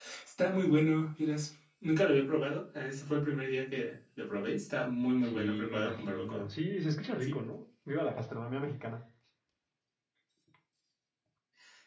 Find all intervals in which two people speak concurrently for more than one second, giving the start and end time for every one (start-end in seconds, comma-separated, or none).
5.2-6.5